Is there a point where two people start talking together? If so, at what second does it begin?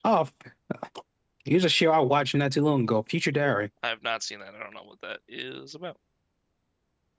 none

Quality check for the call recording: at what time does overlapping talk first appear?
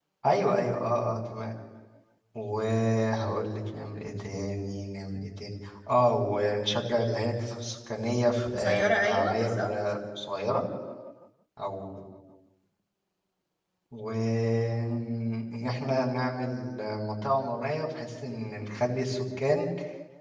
8.5 s

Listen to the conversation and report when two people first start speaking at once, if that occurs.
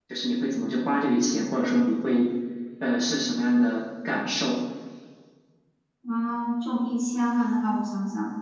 none

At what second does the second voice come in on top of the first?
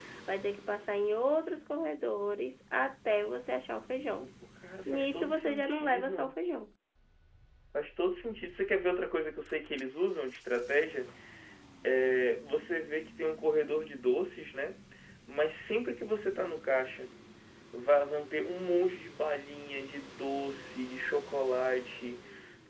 4.9 s

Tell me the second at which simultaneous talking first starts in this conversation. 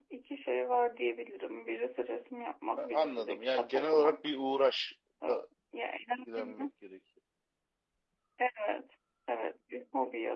2.8 s

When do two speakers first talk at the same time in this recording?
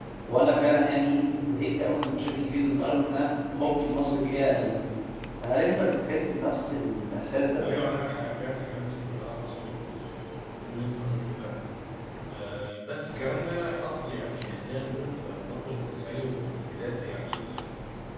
none

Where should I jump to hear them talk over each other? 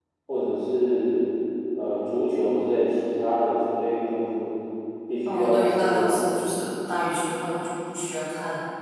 5.2 s

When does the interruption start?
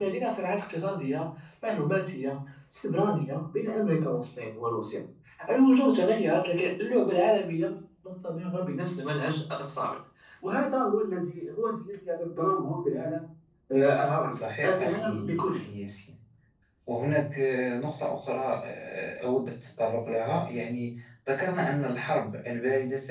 14.3 s

